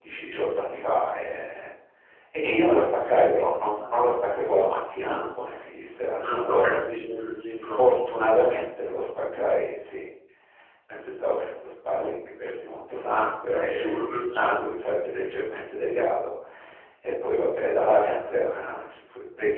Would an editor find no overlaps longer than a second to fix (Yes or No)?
No